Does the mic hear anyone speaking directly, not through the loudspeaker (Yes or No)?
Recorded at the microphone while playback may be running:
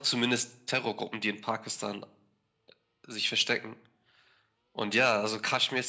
No